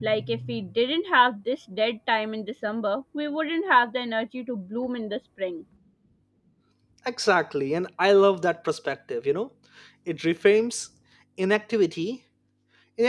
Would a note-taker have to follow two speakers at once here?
No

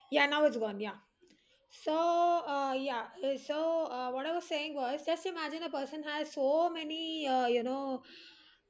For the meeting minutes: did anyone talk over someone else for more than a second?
No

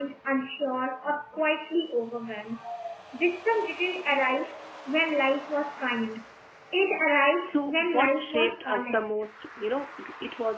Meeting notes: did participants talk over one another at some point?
Yes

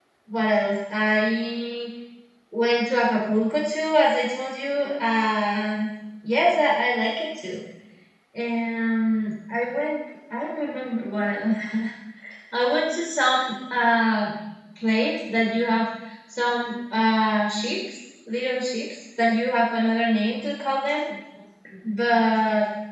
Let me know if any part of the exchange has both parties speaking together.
No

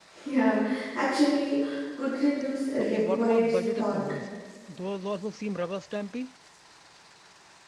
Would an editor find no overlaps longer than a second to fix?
No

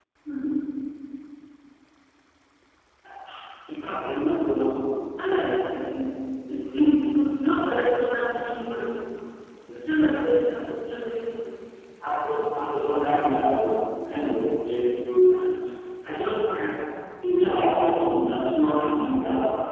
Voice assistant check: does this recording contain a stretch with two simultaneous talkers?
No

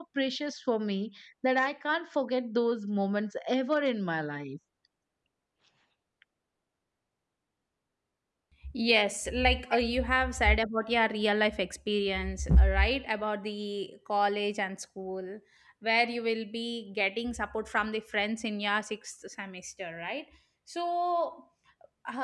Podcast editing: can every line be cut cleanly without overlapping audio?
Yes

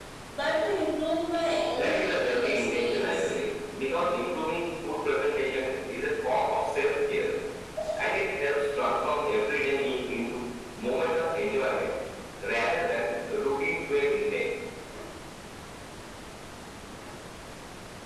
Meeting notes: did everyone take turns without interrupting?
No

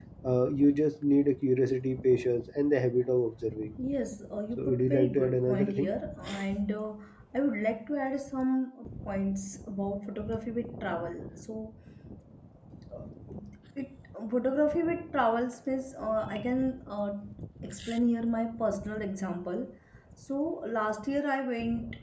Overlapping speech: Yes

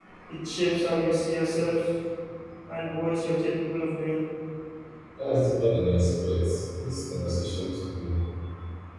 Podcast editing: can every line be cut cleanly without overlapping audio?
Yes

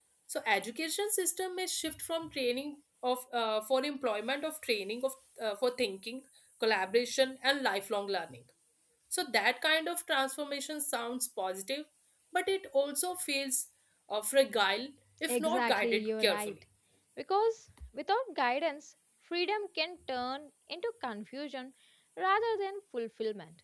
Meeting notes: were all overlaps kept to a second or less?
No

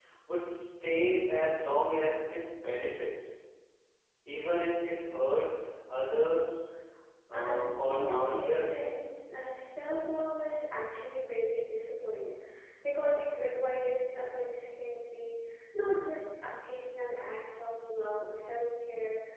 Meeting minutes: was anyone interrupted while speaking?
Yes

